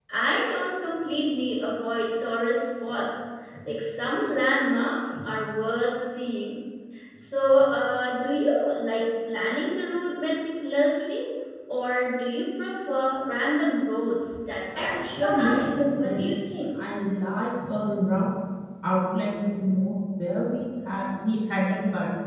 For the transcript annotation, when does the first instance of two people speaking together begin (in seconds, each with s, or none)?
14.8 s